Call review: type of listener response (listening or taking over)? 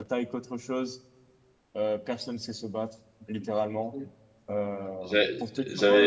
taking over